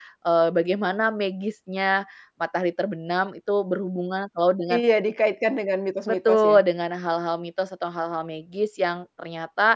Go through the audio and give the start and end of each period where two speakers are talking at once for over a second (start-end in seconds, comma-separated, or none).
none